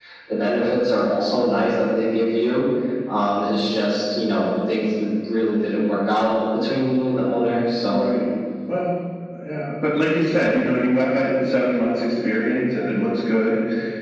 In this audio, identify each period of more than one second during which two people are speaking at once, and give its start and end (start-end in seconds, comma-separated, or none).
none